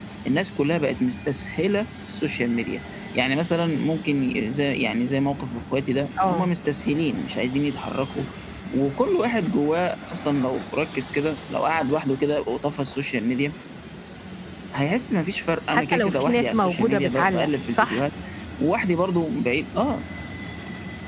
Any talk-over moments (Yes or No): Yes